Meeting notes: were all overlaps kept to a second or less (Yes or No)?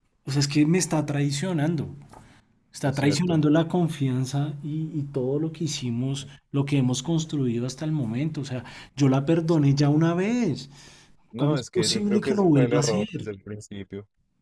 No